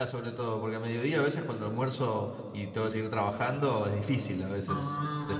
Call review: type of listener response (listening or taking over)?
taking over